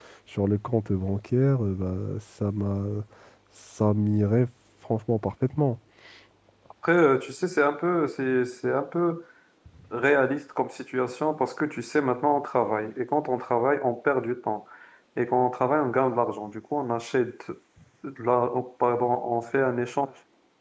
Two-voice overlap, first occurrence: none

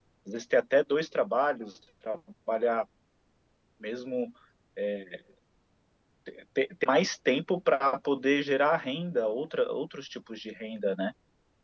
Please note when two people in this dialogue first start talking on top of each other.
none

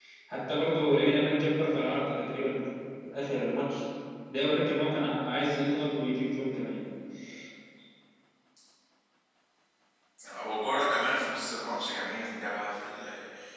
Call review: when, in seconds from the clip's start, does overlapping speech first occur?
none

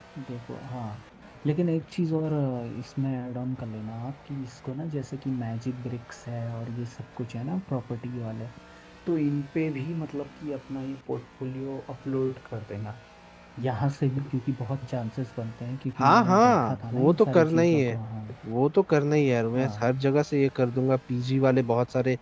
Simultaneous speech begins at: 16.0 s

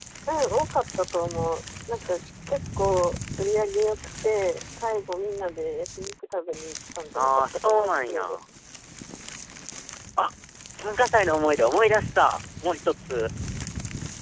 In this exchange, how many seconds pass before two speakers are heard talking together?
7.1 s

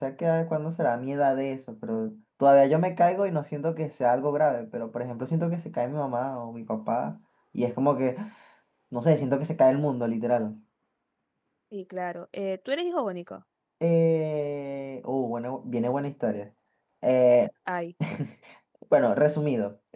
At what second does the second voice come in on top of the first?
none

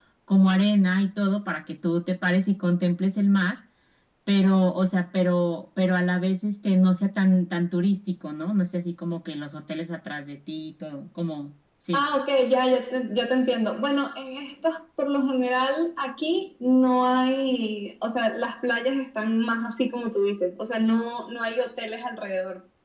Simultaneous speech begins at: none

